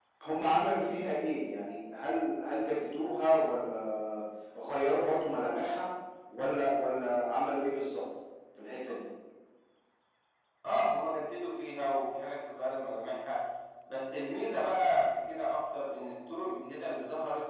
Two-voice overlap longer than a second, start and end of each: none

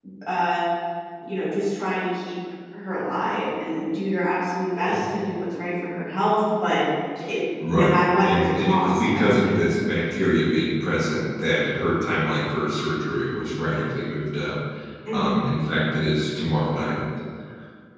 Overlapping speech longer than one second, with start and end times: 7.7-9.6

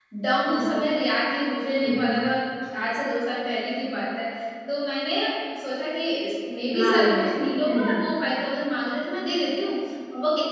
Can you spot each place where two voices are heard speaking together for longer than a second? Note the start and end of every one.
6.8-8.0

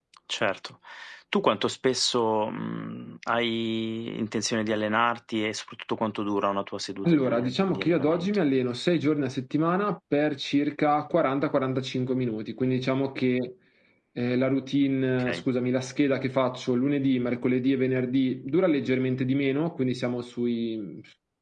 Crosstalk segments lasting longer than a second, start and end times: 7.1-8.4

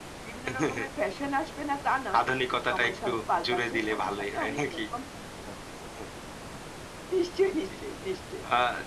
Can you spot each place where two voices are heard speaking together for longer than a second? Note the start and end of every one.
2.7-4.8

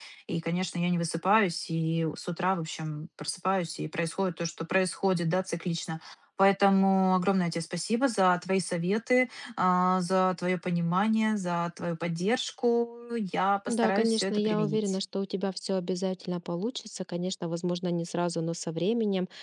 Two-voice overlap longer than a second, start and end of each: 13.7-15.0

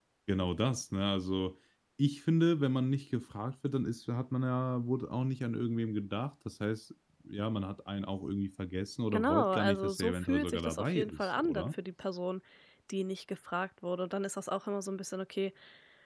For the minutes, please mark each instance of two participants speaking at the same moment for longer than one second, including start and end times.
9.1-11.7

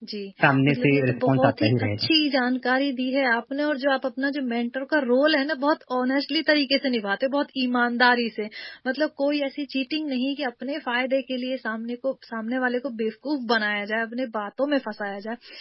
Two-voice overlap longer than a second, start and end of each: 0.7-2.1

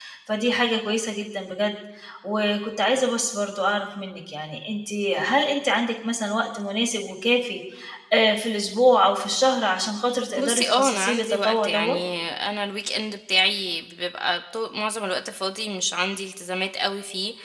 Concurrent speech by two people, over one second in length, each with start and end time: 10.4-12.0

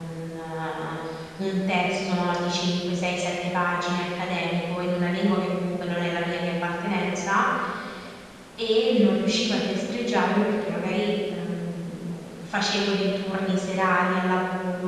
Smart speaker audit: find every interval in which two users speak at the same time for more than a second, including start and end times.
none

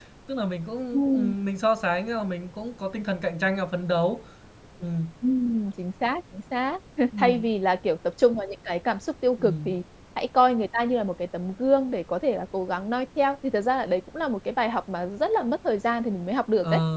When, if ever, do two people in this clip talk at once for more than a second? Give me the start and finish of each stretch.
none

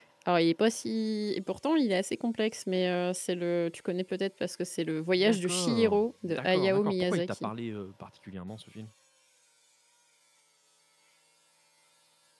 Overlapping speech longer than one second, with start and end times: 5.2-7.5

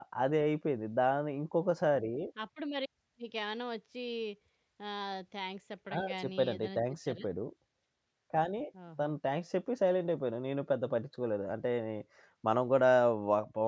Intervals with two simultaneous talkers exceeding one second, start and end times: 6.0-7.2

